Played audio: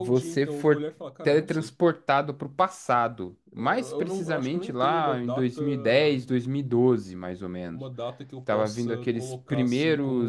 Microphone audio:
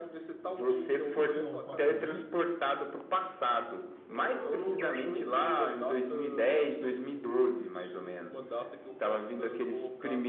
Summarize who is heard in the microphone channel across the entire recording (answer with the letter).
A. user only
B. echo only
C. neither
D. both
D